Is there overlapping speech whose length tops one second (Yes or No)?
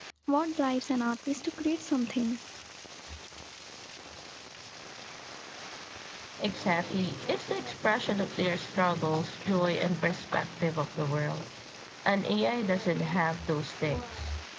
No